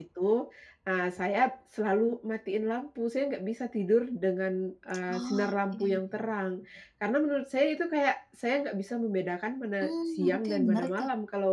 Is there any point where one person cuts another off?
Yes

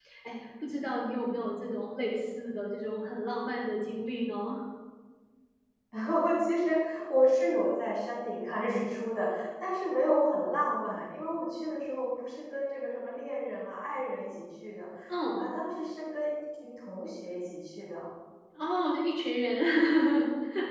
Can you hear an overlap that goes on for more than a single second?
No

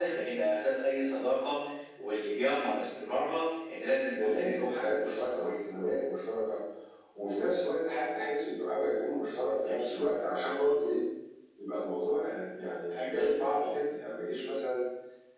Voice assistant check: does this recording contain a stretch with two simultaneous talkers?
Yes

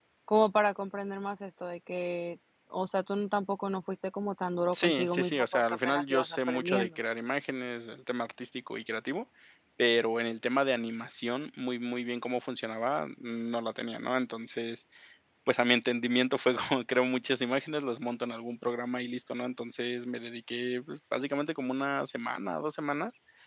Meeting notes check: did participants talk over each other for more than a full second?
Yes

